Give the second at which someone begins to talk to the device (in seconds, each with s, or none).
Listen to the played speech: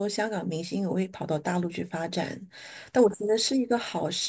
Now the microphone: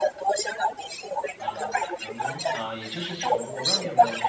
1.4 s